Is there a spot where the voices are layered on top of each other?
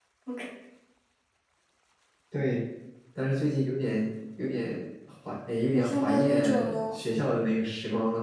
Yes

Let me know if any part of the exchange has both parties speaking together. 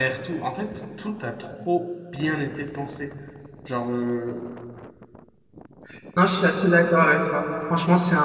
No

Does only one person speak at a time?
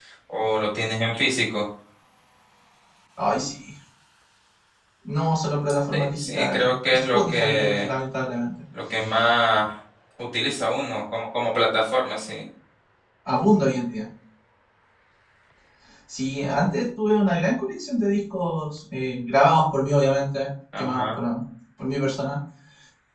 No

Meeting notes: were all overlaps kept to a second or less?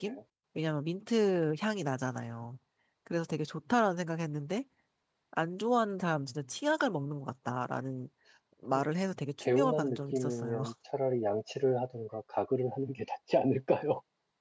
No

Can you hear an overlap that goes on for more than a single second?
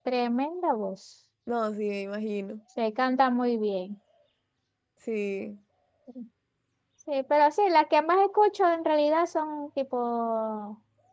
No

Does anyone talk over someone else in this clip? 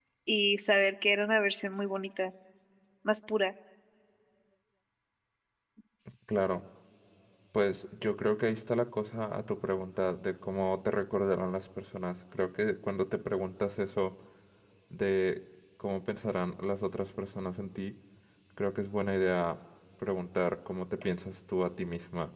No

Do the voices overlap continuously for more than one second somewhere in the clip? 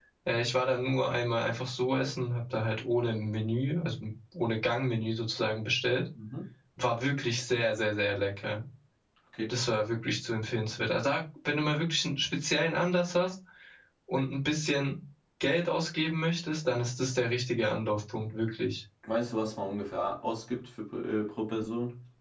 No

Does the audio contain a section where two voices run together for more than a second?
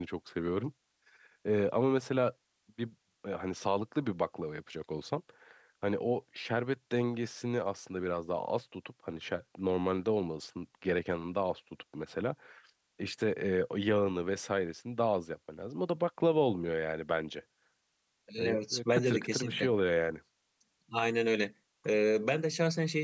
Yes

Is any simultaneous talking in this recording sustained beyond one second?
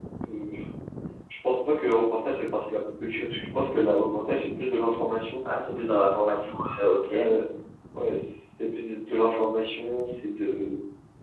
No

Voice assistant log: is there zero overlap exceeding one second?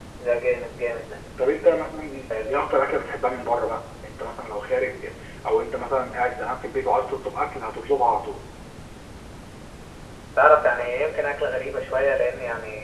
Yes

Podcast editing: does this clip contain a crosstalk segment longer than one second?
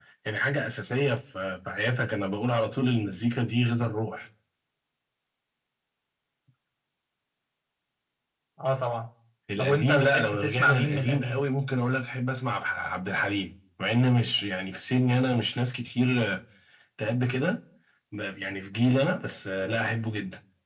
Yes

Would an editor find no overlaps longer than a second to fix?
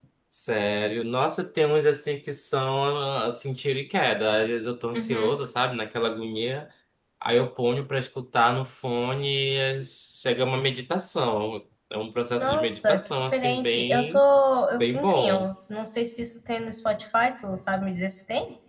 No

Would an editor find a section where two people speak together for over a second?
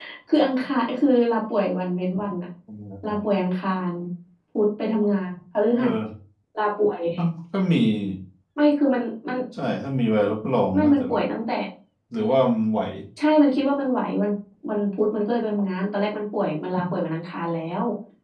No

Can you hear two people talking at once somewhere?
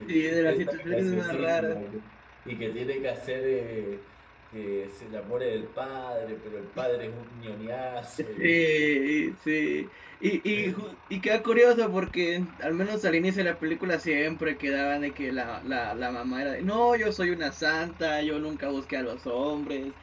Yes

